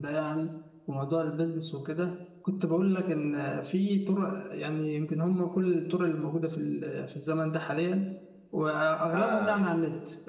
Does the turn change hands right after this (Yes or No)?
No